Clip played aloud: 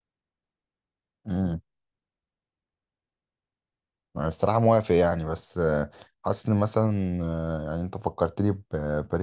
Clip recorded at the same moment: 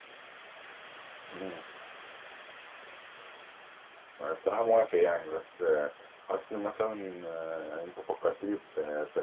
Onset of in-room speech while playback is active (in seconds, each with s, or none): none